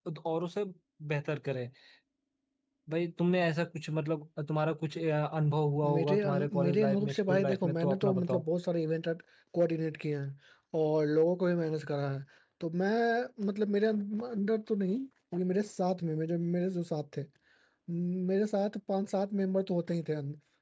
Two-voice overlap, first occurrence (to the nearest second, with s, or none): 6 s